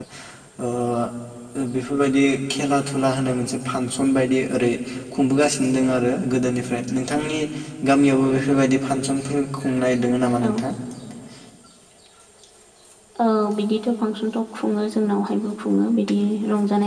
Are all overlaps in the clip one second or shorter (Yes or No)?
Yes